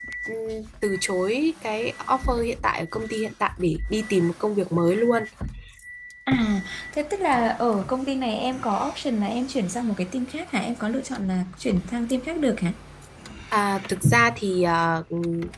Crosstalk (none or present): none